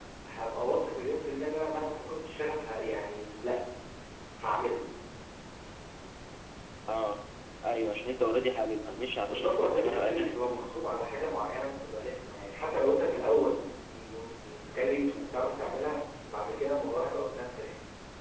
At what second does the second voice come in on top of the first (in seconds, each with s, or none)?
9.3 s